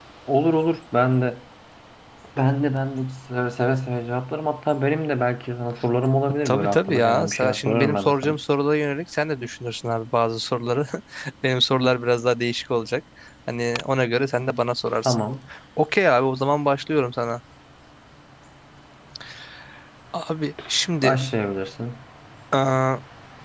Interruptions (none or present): present